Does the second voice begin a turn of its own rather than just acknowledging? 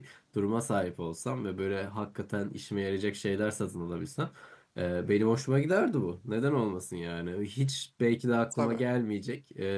No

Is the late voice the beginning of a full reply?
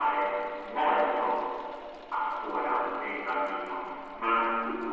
No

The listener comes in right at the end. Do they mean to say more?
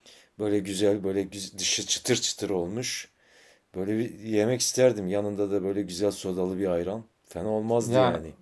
Yes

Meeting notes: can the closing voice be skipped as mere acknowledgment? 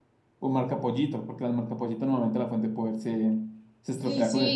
No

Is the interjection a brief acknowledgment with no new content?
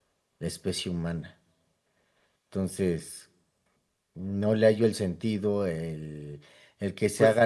Yes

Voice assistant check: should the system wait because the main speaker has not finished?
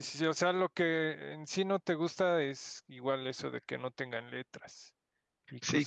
No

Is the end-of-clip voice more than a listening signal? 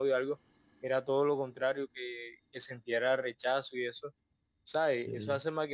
No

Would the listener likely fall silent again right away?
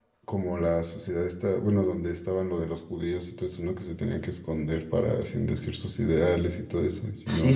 No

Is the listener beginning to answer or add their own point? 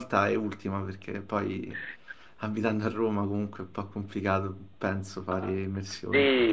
Yes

